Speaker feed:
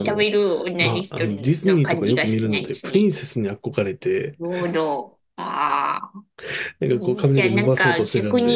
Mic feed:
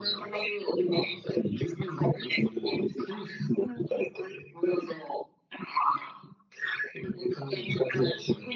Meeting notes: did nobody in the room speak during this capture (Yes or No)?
No